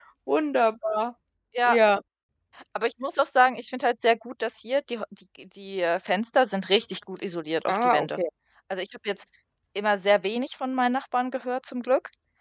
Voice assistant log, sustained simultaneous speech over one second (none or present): none